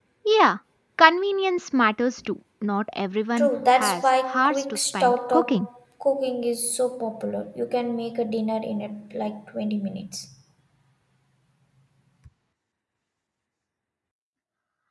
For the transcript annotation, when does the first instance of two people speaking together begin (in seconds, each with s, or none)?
3.4 s